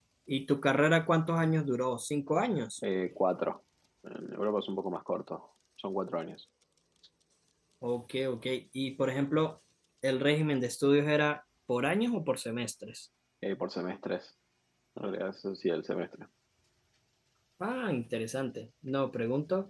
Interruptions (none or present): none